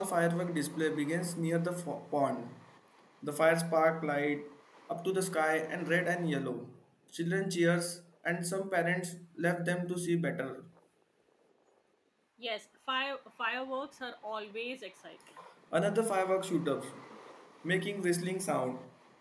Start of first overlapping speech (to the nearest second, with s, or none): none